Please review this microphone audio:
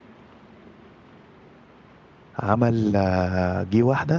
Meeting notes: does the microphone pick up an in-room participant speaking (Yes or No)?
Yes